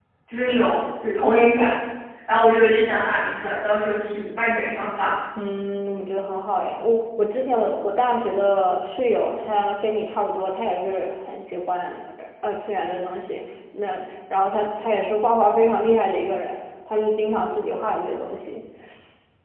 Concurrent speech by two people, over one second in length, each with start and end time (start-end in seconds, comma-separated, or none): none